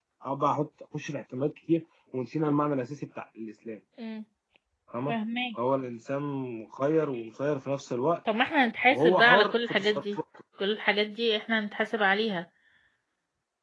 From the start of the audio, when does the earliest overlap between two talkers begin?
8.9 s

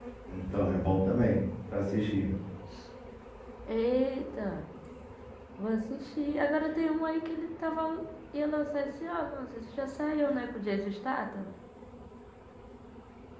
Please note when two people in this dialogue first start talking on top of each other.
none

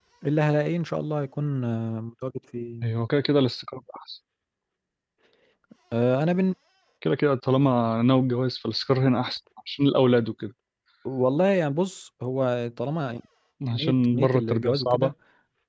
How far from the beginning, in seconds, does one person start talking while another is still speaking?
13.7 s

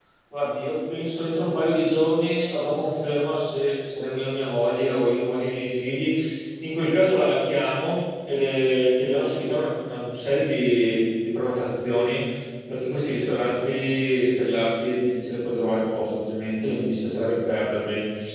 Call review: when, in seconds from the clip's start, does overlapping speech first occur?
none

